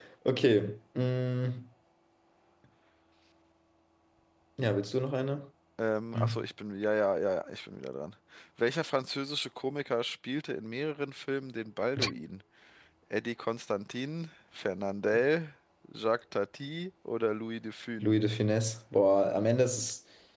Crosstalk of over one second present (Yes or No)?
No